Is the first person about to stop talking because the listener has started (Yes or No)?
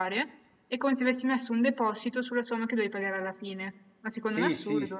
Yes